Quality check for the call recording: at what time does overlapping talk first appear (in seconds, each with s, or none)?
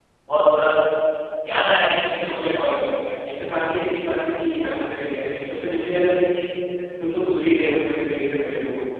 none